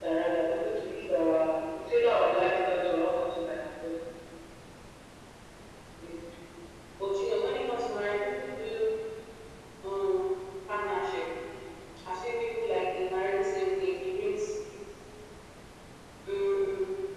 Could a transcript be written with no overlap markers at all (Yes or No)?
Yes